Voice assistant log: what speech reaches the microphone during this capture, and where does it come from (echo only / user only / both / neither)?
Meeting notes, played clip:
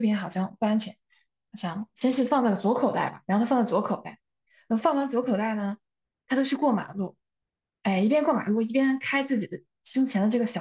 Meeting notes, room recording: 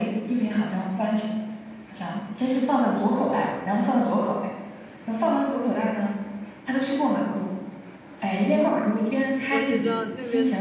both